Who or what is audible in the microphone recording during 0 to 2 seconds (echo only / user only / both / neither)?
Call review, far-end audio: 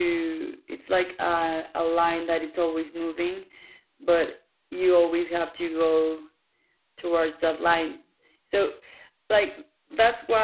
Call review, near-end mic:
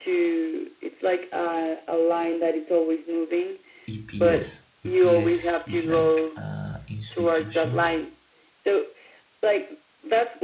echo only